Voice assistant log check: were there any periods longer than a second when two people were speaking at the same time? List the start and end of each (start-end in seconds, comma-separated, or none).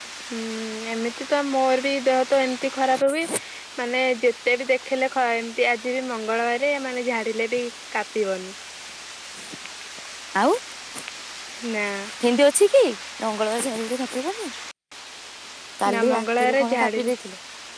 15.9-17.1